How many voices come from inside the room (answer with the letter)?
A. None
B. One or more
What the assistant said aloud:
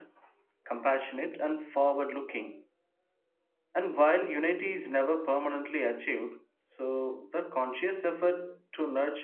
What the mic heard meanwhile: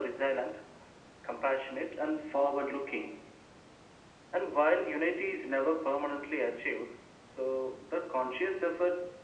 A